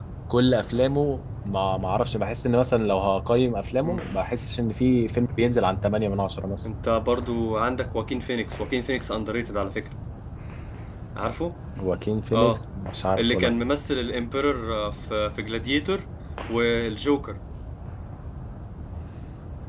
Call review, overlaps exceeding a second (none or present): none